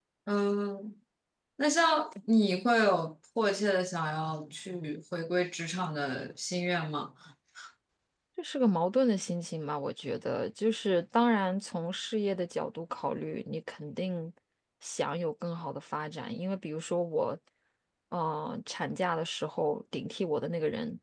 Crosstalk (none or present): none